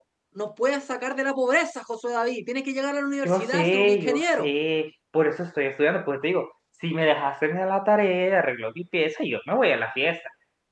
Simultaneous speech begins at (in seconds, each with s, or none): 3.2 s